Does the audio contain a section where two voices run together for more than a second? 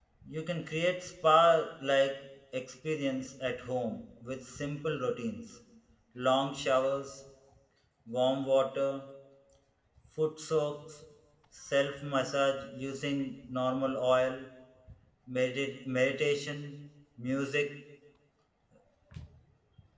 No

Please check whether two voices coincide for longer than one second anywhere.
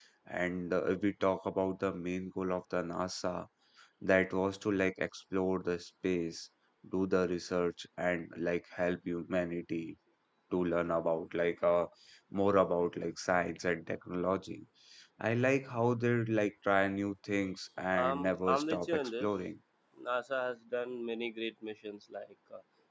Yes, from 17.9 s

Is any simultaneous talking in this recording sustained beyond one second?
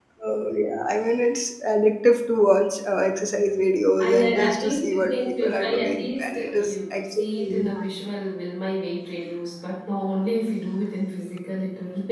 Yes, from 4.0 s

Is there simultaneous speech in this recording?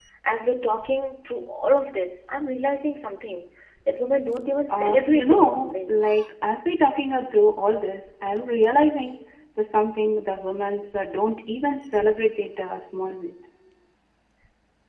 Yes, from 4.7 s

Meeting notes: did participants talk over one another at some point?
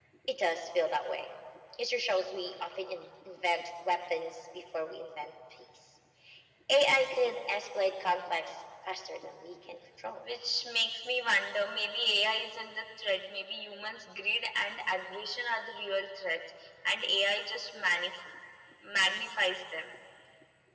No

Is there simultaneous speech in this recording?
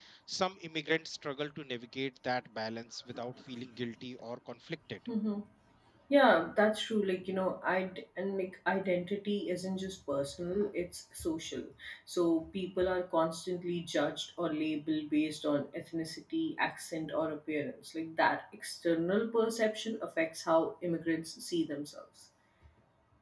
No

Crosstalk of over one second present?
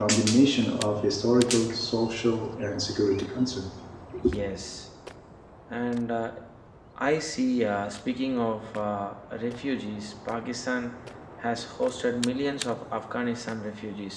No

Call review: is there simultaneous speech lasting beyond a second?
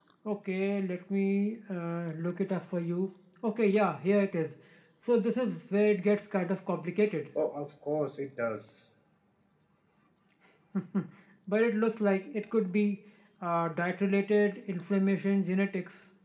No

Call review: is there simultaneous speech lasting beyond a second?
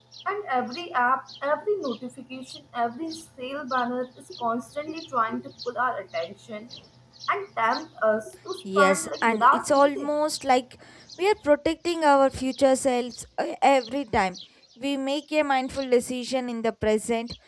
Yes, from 8.8 s

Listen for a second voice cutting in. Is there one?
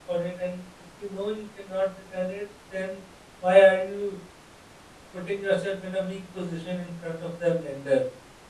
No

